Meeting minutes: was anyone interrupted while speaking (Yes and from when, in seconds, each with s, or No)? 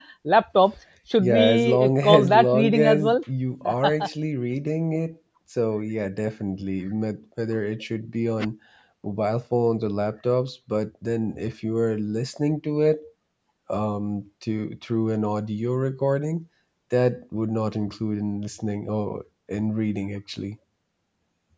Yes, from 1.2 s